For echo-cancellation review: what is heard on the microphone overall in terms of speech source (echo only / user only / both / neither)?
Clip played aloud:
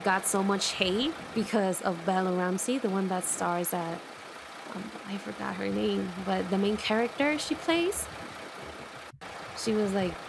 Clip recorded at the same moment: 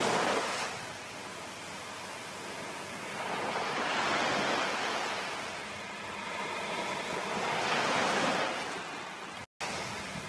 neither